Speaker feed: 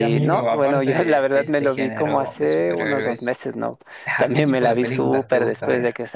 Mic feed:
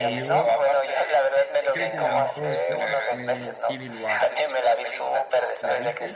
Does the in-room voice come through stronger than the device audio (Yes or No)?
No